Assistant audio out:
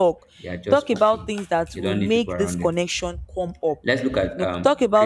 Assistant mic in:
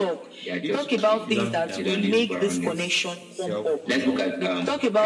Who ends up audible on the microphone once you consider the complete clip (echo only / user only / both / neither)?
both